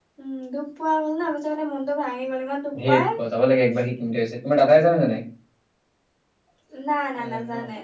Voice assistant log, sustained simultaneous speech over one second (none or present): none